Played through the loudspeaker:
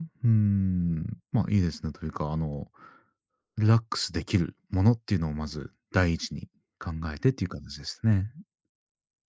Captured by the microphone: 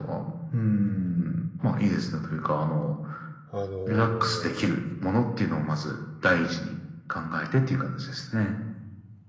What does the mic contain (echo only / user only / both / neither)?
both